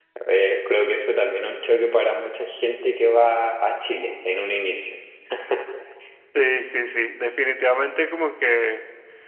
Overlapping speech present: No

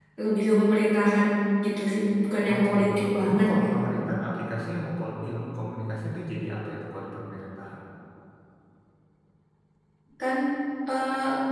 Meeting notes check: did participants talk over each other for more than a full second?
Yes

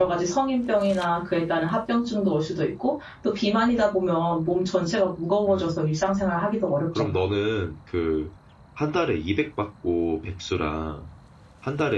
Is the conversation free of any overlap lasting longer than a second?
Yes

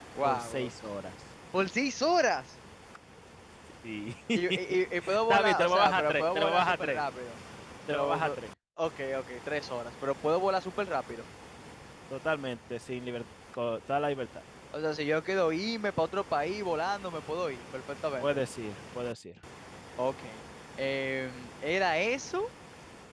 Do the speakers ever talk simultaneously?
Yes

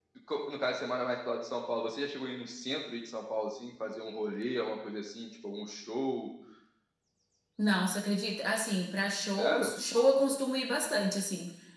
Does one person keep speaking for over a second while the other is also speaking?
No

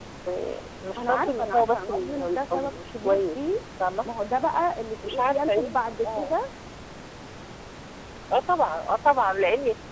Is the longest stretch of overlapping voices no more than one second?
No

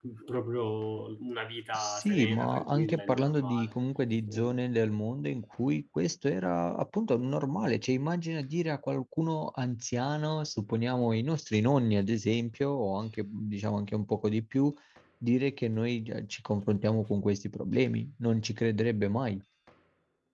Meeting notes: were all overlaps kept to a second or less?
No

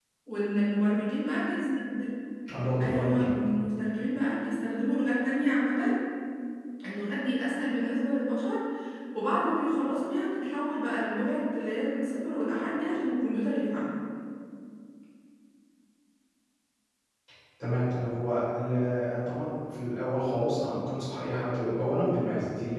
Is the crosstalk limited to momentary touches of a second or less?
Yes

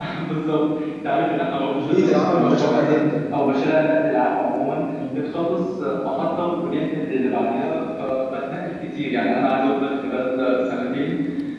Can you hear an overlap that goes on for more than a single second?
Yes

